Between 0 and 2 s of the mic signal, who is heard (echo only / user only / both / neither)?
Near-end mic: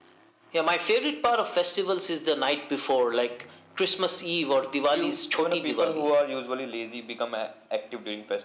echo only